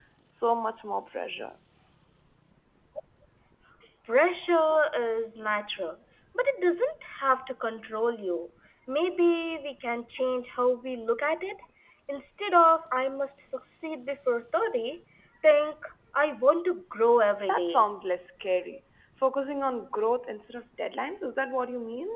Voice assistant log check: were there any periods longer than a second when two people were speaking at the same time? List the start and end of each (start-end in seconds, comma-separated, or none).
none